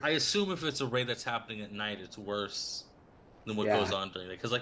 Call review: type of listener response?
listening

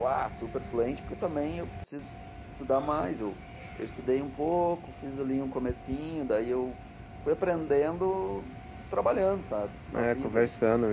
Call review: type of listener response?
taking over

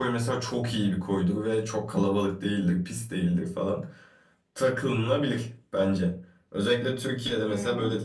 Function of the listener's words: listening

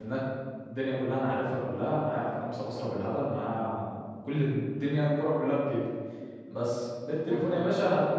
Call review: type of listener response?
listening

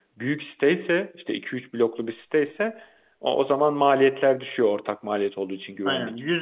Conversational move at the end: taking over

